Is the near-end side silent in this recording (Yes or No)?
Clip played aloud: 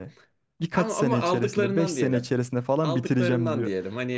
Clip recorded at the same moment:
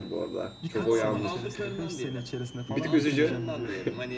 No